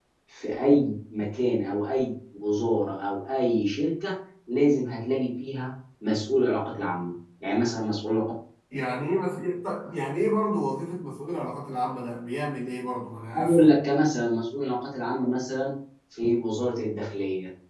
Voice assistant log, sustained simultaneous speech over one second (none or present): none